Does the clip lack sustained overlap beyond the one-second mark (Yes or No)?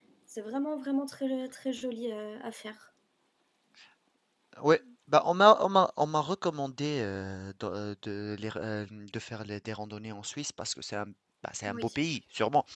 Yes